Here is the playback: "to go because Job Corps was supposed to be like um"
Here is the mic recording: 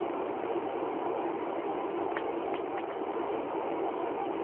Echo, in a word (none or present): none